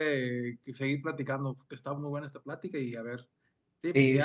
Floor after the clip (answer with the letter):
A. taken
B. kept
A